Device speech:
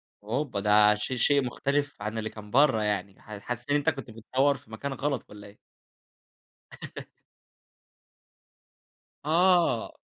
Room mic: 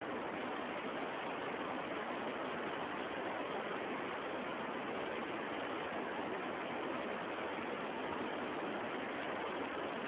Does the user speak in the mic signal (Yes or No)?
No